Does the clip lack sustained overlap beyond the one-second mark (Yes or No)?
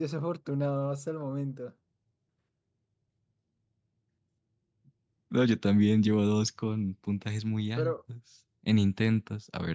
Yes